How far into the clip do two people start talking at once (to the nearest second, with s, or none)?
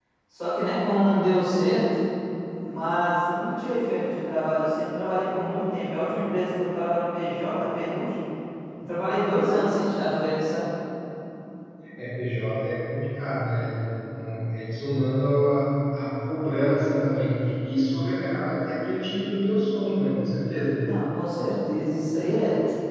none